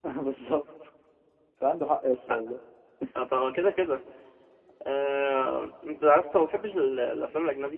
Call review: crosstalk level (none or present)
none